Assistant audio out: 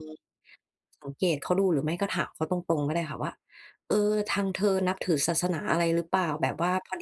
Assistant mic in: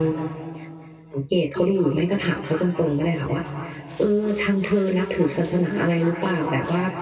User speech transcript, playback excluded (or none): none